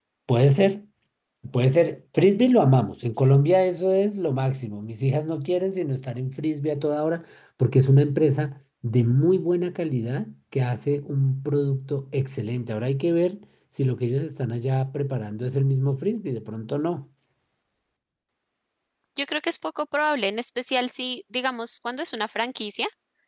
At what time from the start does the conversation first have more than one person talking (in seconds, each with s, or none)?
none